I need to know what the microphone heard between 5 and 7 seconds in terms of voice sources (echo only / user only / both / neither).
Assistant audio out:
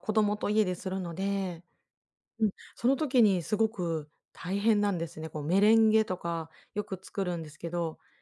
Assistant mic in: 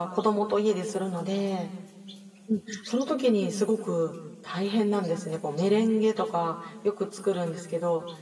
echo only